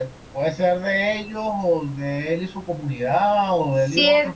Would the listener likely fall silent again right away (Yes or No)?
No